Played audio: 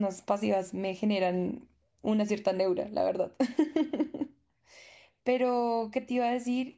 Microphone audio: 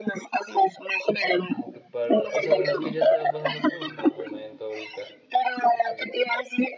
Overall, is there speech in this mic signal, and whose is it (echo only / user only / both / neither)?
both